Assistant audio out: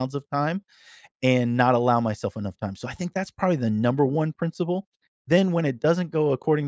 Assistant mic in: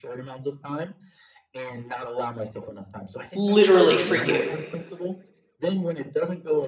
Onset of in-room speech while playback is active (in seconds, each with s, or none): 3.3 s